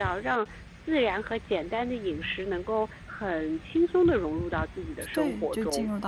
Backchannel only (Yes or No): No